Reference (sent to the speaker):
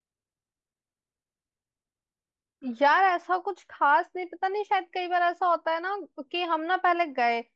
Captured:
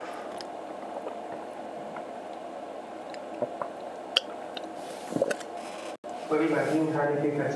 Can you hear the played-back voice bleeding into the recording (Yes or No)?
No